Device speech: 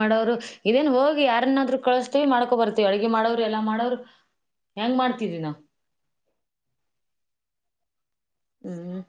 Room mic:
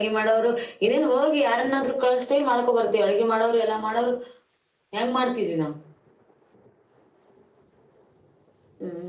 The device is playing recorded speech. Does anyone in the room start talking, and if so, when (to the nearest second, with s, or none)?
none